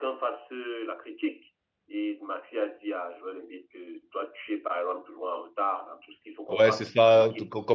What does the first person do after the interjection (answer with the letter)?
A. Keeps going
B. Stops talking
B